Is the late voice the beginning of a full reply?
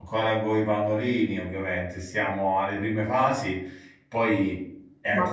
Yes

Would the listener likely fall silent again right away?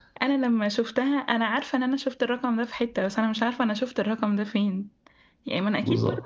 Yes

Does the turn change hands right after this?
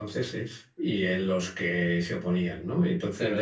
Yes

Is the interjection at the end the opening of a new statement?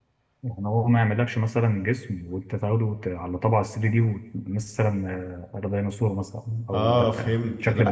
Yes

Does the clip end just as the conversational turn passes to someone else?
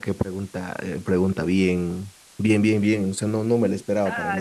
Yes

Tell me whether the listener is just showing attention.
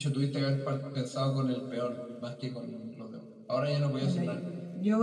No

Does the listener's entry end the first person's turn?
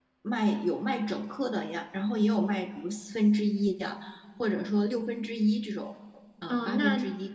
Yes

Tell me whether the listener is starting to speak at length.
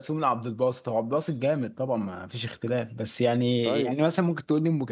No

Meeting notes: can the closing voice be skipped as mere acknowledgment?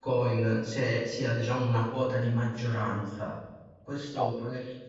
Yes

